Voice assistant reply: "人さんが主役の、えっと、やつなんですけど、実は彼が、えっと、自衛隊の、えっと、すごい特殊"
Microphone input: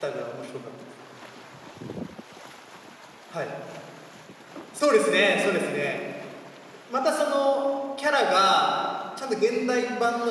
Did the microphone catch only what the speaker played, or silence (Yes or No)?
No